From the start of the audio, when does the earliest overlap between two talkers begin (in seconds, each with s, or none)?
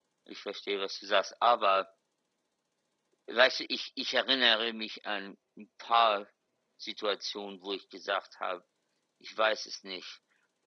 none